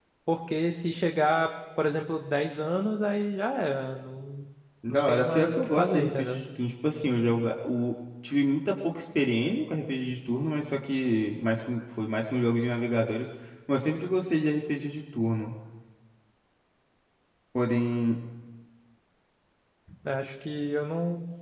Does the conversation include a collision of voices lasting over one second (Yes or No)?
Yes